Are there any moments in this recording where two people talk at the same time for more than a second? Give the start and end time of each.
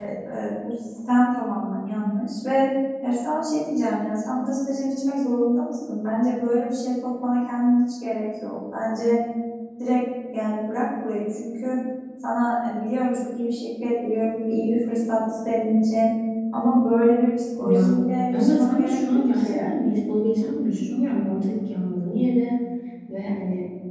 18.3-19.5

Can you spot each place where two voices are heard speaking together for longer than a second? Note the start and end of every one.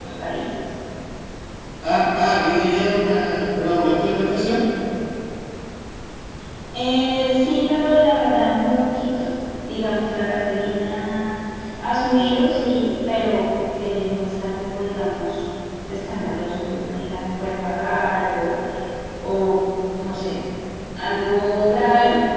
none

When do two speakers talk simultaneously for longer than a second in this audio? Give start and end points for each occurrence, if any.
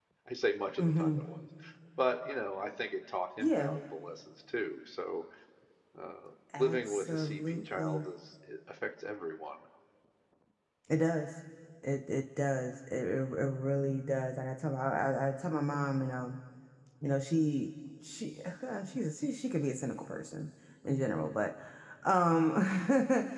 6.6-8.1

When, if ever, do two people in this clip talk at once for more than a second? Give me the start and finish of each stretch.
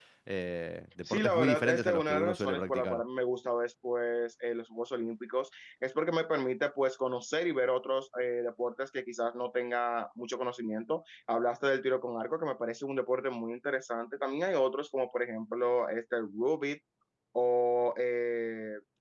1.1-3.0

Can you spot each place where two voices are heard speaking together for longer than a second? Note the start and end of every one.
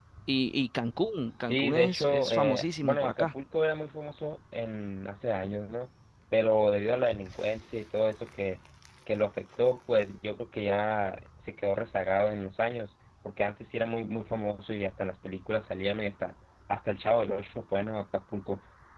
1.4-3.3

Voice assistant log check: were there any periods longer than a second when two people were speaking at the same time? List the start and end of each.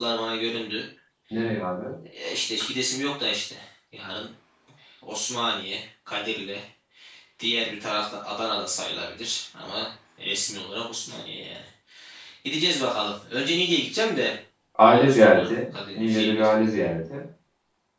14.9-16.5

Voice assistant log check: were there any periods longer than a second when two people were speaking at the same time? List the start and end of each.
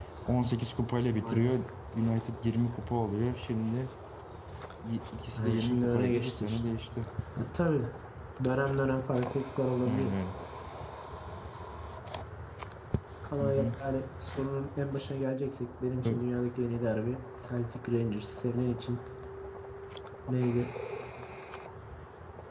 5.4-6.6

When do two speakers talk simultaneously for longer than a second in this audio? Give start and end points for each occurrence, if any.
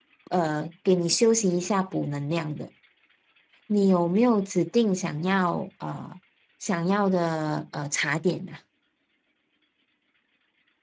none

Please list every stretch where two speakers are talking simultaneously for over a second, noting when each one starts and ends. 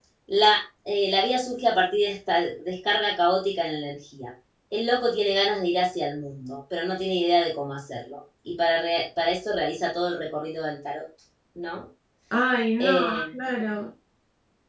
none

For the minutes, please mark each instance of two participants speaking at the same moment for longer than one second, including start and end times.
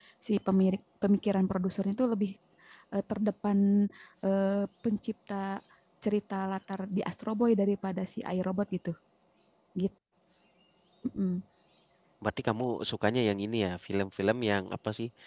none

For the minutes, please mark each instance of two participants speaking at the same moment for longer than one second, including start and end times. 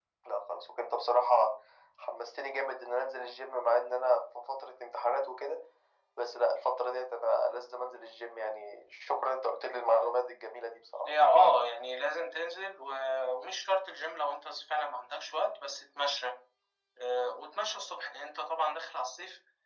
none

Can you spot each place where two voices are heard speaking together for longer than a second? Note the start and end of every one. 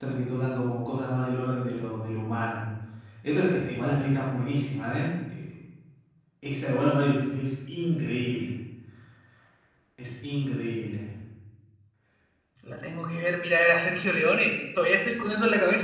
none

